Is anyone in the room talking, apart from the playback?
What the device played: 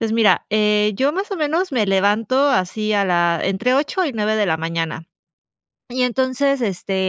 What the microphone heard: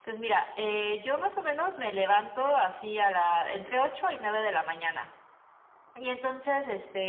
No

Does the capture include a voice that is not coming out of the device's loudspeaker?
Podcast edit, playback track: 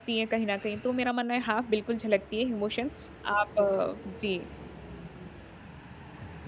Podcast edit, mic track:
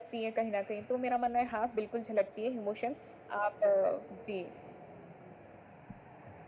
No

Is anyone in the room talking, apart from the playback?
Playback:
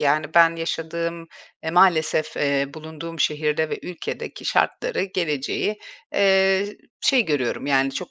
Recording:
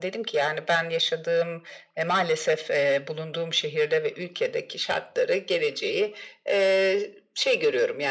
No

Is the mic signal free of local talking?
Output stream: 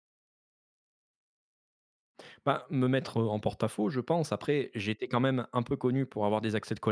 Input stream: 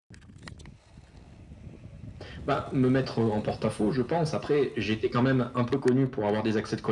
Yes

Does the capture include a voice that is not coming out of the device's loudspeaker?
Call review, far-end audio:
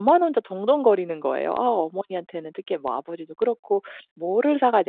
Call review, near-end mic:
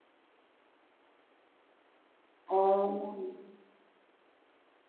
Yes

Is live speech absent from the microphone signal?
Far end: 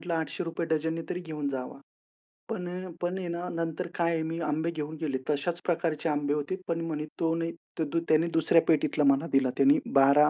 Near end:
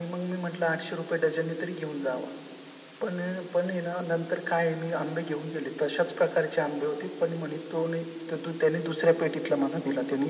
Yes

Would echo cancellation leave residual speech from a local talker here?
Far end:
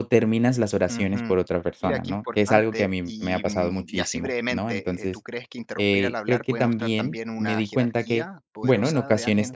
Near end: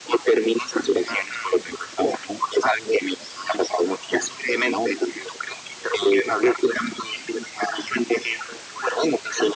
No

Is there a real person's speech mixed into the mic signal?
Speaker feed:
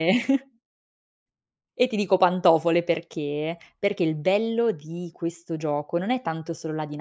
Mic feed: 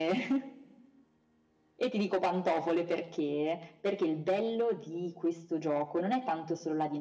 No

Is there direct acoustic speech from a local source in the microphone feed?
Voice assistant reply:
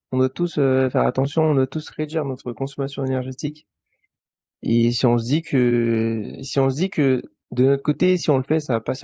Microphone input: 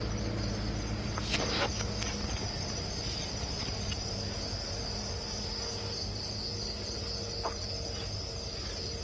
No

